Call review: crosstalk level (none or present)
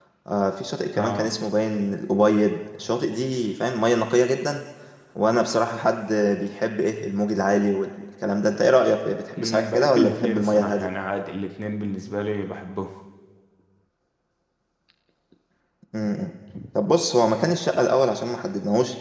present